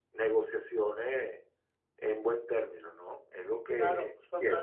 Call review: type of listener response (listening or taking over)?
taking over